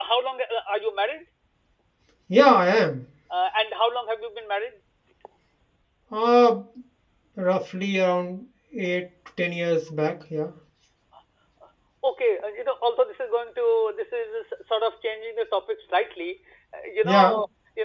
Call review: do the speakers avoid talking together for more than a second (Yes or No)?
Yes